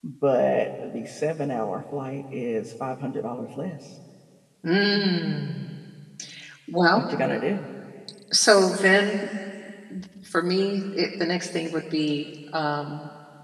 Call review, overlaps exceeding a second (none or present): none